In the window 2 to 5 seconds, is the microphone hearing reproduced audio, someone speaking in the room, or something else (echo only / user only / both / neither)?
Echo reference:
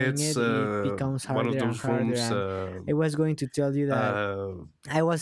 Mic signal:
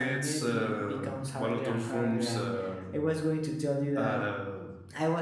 echo only